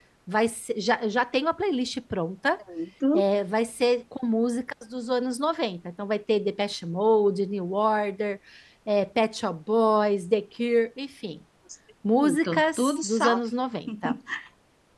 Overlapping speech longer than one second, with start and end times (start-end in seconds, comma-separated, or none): 12.2-13.4